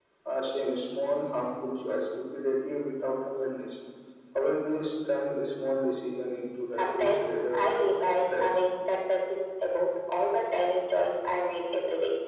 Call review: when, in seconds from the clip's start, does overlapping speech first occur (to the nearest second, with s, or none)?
7 s